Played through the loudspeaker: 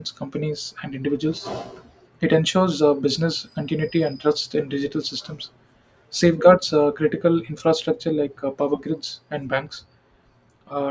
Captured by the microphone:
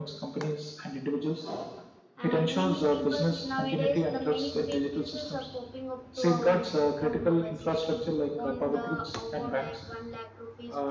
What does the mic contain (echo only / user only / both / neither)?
both